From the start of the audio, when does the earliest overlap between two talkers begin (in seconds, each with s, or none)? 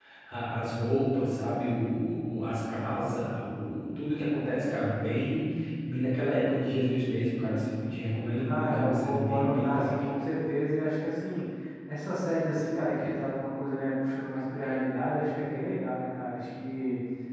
8.5 s